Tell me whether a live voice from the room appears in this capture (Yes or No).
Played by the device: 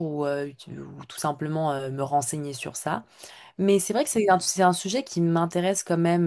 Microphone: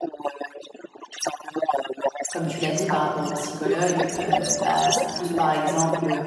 Yes